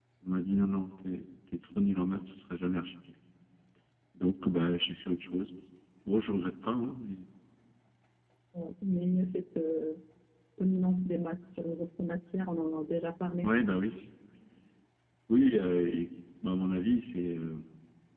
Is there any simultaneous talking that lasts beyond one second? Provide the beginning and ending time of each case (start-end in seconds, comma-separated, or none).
none